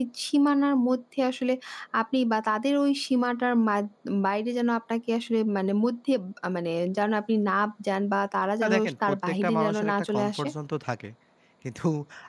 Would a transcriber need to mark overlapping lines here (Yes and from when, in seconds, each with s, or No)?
Yes, from 8.6 s